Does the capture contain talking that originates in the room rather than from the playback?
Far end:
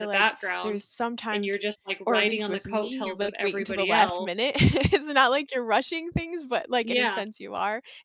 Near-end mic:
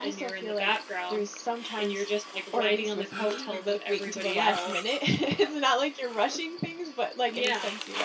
No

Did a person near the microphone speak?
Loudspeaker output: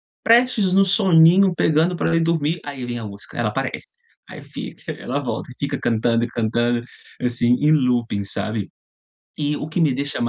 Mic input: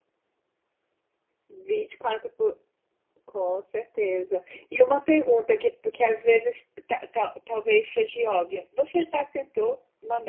Yes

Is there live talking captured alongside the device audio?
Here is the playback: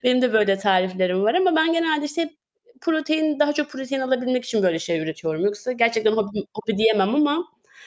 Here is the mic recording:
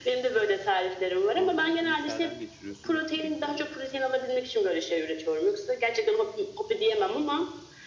Yes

